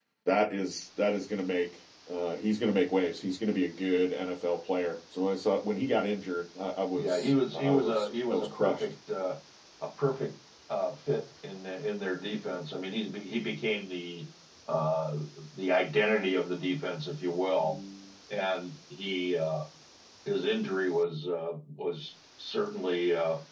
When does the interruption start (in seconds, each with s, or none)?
7.0 s